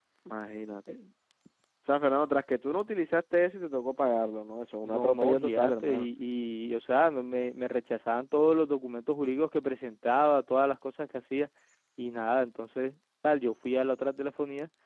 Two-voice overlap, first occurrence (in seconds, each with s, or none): 4.8 s